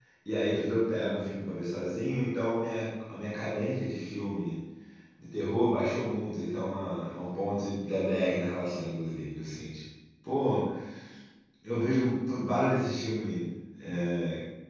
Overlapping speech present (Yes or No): No